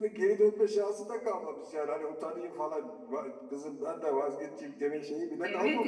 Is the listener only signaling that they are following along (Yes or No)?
No